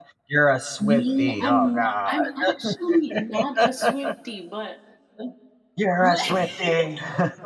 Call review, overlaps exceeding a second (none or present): present